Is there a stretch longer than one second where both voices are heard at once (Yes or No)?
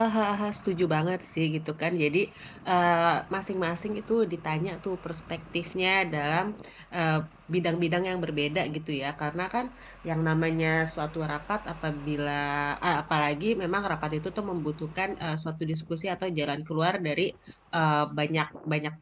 No